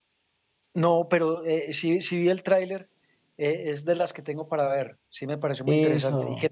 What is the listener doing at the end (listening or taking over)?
taking over